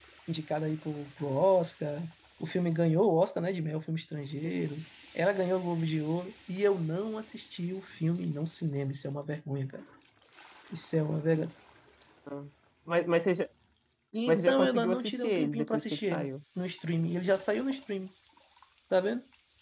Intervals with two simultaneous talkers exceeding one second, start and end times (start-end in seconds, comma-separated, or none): 14.3-16.3